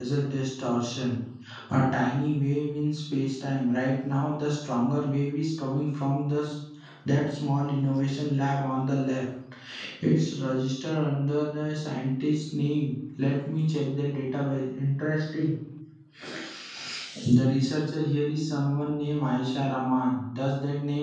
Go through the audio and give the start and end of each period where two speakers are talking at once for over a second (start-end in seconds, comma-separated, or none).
none